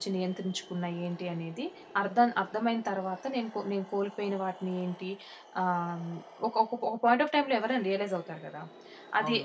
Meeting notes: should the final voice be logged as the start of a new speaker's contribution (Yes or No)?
Yes